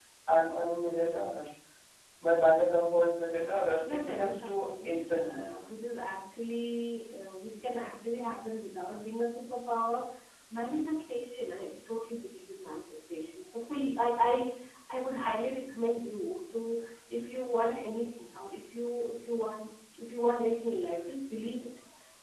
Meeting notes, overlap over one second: present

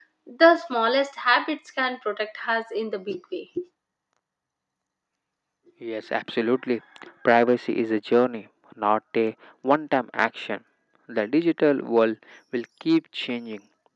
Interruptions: none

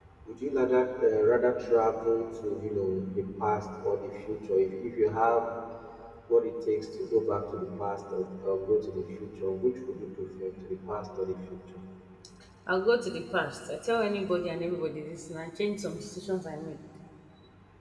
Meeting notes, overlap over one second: none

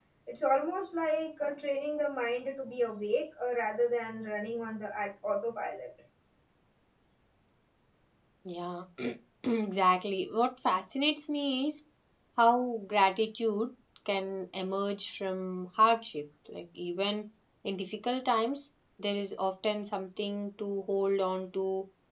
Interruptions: none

